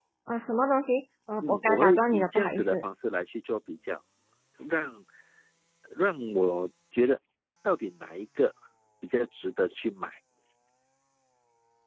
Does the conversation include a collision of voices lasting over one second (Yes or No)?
Yes